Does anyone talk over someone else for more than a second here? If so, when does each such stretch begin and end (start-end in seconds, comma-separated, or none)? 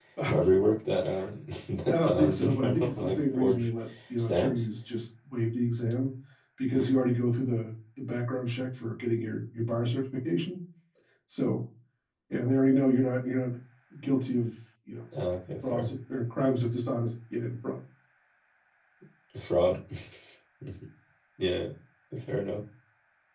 1.9-3.7